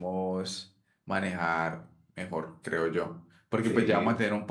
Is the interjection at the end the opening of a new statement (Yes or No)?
No